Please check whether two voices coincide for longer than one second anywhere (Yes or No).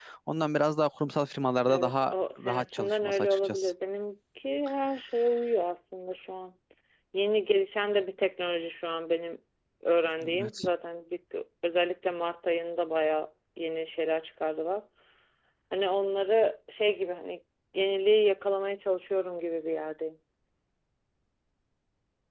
Yes